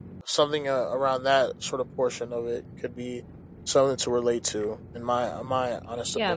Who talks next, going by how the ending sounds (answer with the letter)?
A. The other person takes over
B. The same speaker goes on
A